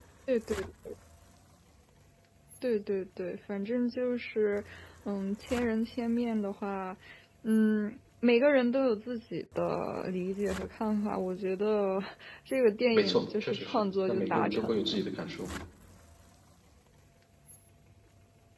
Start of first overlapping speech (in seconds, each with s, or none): 12.9 s